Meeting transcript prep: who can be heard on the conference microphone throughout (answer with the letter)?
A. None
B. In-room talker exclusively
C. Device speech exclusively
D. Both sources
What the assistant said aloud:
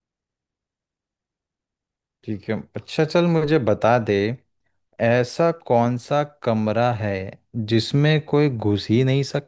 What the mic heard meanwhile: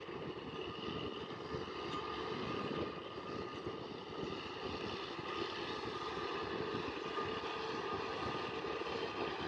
A